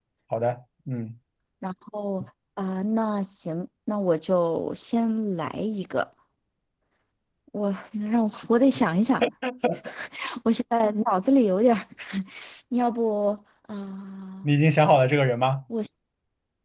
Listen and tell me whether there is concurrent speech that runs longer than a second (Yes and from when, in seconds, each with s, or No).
No